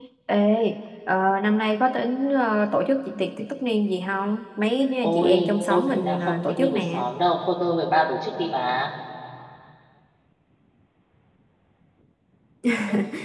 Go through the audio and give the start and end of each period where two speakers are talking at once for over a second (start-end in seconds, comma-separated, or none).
5.0-7.0